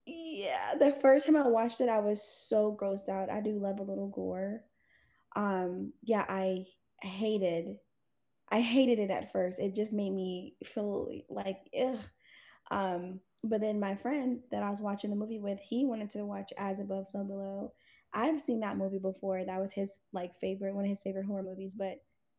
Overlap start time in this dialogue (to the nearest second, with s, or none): none